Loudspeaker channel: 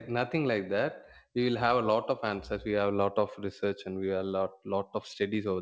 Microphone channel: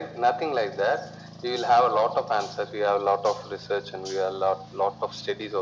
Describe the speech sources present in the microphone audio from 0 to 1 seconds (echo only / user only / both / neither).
echo only